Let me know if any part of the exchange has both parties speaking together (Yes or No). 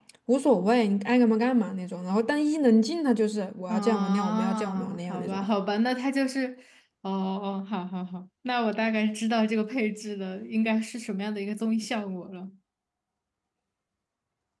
Yes